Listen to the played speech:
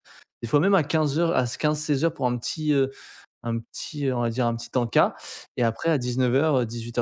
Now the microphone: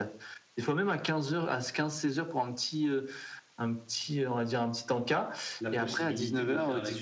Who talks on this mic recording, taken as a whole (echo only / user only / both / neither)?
both